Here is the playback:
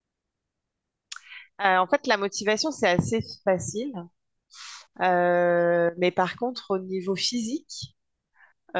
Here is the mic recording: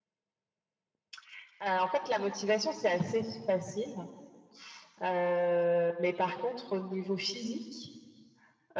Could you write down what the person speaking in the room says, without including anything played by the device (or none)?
none